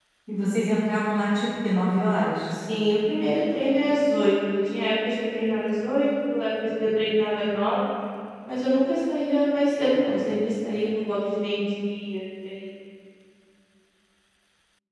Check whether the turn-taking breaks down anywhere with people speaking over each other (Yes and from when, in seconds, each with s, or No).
No